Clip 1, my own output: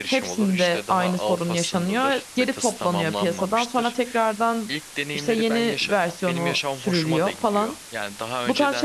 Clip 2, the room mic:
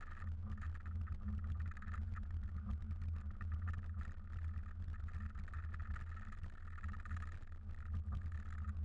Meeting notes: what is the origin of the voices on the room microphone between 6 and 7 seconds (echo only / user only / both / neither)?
neither